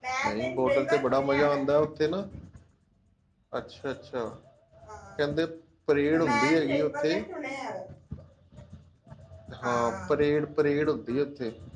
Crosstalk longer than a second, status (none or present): present